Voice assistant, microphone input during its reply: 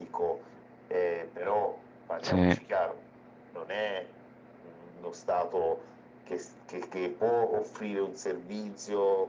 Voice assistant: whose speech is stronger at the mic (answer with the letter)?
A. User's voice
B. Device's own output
A